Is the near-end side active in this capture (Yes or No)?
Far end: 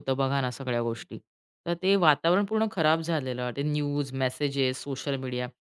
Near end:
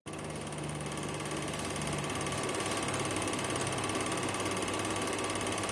No